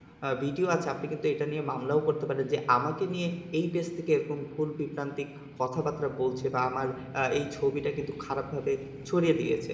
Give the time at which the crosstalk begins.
none

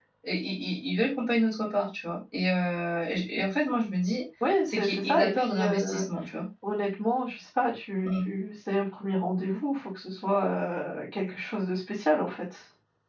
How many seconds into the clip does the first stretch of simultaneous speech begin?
4.7 s

